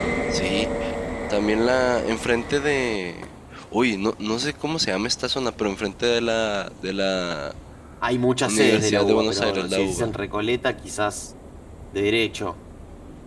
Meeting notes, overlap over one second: present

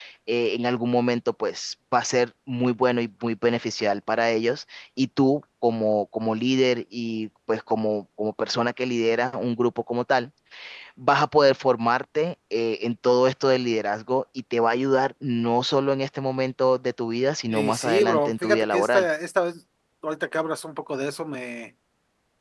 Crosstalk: present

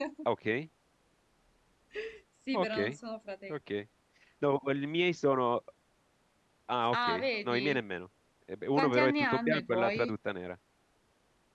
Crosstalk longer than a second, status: present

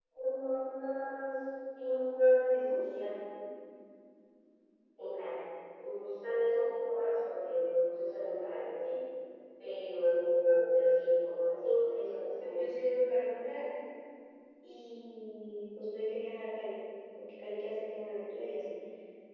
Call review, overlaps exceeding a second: none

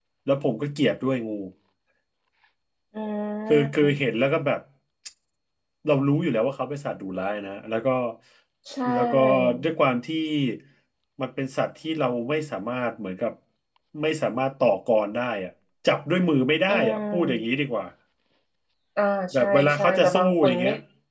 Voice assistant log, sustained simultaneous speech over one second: present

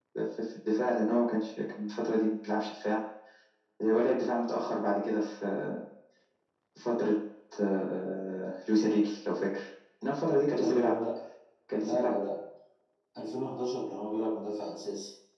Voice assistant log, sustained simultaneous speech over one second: none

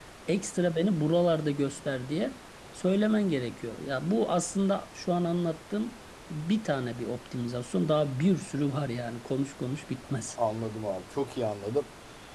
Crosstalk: none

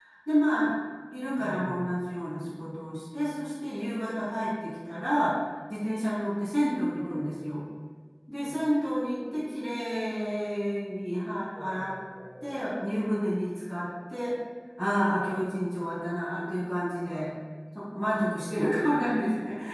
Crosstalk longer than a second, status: none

